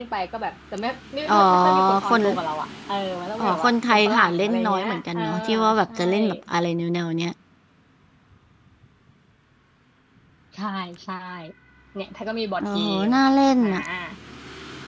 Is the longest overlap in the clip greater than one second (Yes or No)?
Yes